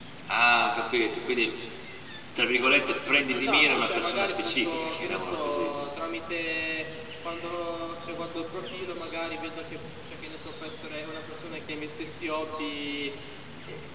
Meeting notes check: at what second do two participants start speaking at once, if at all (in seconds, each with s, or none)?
3.3 s